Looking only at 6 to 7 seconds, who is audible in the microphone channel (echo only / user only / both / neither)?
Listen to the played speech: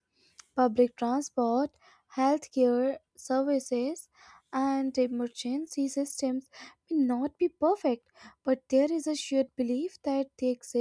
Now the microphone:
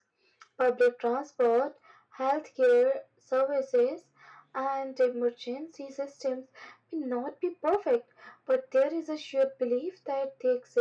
echo only